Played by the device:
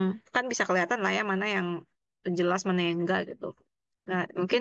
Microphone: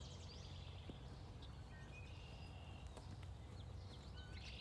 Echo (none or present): none